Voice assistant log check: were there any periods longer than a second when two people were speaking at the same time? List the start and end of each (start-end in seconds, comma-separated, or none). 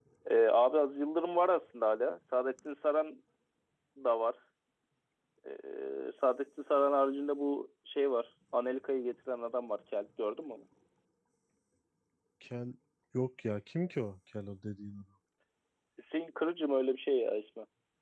none